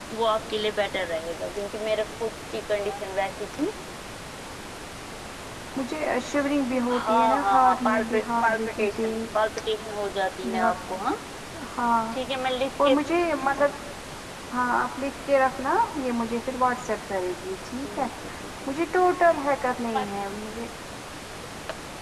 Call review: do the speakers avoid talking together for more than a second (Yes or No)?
No